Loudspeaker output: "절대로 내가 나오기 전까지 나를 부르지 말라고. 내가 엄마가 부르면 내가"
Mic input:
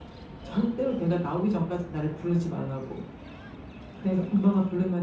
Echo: present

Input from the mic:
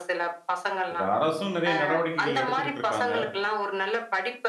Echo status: present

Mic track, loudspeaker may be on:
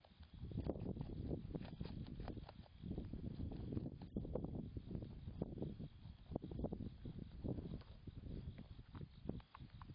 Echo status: none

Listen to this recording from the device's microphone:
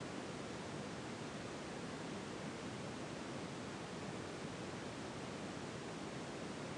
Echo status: none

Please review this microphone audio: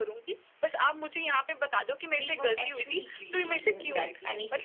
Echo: present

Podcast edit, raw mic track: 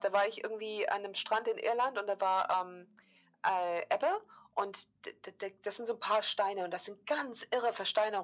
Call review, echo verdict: present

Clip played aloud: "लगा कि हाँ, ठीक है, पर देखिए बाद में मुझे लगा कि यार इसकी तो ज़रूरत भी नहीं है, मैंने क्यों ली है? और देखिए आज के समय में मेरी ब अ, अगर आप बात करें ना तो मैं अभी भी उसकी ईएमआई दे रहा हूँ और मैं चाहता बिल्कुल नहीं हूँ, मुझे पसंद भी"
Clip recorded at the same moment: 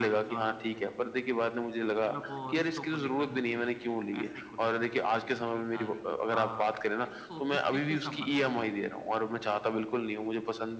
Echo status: present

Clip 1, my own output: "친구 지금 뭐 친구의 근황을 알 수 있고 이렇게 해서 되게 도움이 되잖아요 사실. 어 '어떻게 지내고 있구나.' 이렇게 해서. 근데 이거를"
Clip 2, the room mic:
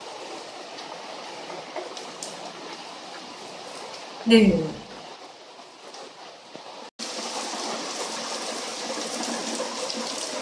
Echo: none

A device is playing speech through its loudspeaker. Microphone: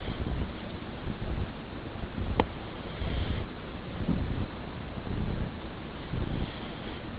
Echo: none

